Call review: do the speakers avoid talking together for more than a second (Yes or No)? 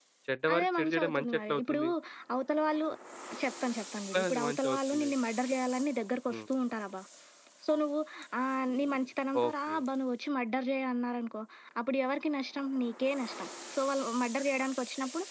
No